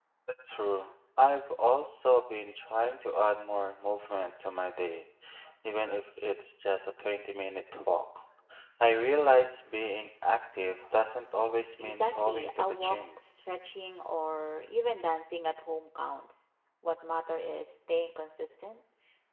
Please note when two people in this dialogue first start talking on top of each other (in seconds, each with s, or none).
11.8 s